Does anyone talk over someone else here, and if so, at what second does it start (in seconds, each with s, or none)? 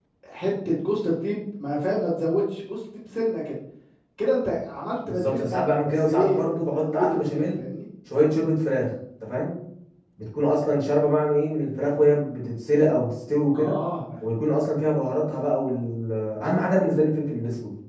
5.1 s